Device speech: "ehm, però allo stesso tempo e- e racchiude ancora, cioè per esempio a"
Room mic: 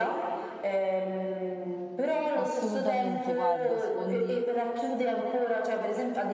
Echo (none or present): present